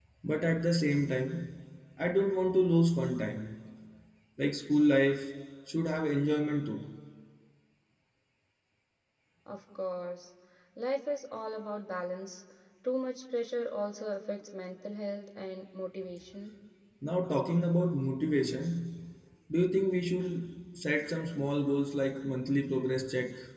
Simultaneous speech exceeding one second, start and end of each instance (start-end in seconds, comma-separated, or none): none